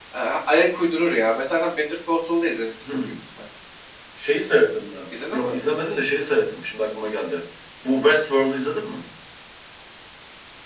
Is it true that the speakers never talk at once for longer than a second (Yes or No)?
Yes